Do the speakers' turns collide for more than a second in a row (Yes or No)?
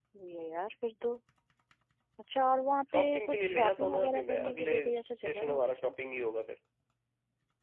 Yes